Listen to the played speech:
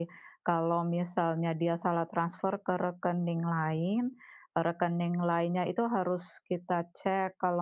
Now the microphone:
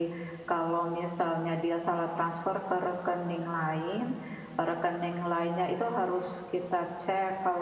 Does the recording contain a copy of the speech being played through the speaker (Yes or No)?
Yes